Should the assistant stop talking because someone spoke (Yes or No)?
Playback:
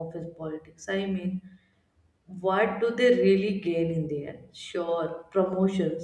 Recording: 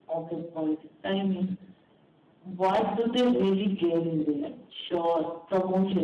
No